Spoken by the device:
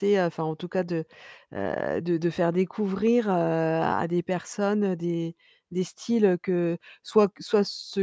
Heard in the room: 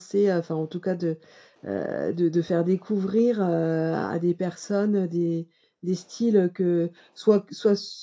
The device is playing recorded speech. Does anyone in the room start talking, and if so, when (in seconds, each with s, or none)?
none